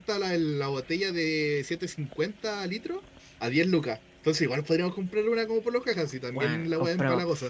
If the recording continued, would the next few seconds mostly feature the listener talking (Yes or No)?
Yes